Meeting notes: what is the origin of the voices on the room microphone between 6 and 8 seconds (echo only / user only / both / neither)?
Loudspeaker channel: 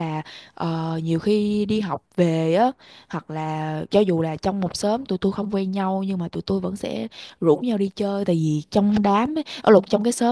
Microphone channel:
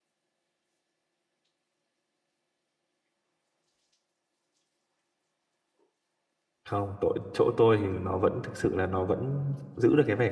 user only